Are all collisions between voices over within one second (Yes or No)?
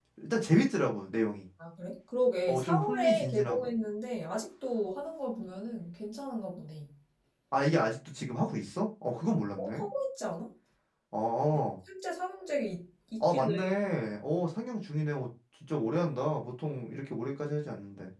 No